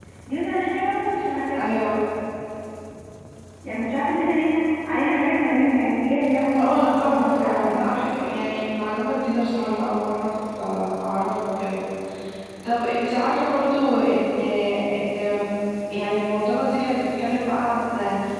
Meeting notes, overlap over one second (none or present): present